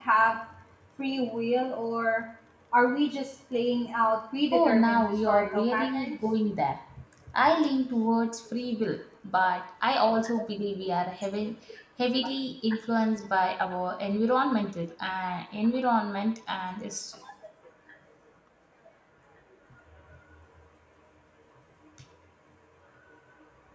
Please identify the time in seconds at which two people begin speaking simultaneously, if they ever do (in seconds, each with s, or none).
4.5 s